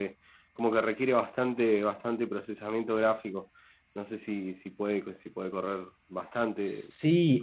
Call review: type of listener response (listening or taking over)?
taking over